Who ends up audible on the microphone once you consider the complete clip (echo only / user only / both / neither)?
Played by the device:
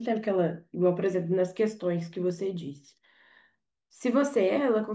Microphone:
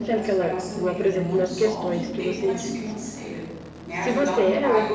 both